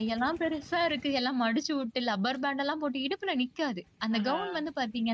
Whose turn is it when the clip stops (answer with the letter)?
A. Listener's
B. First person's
B